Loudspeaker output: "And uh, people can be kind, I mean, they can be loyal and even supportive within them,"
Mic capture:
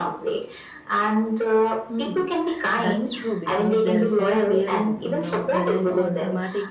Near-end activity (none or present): present